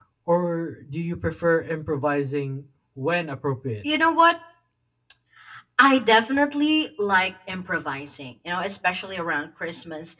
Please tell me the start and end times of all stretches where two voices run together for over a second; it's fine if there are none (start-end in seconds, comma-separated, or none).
none